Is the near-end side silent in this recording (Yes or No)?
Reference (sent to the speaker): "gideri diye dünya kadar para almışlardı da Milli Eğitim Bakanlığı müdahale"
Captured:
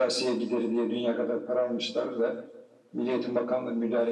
Yes